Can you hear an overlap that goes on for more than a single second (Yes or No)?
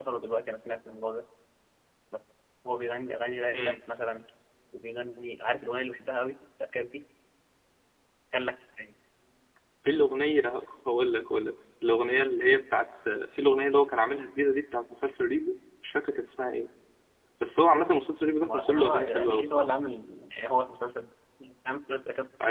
Yes